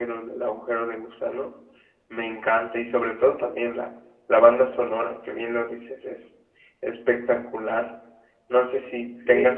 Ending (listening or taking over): listening